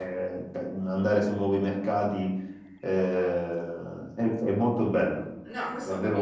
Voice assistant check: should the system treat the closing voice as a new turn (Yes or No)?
Yes